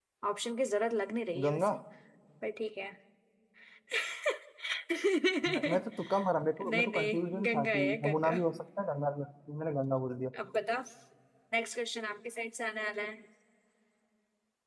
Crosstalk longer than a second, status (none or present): present